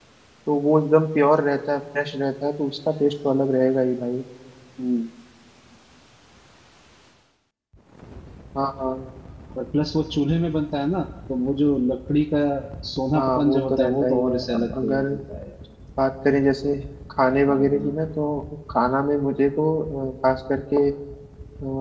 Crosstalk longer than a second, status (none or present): present